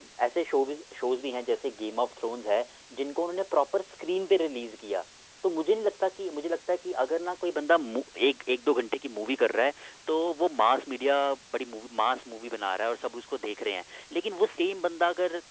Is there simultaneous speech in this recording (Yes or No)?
No